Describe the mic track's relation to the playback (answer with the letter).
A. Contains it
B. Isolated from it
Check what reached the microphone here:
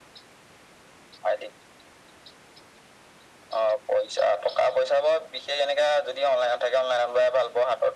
A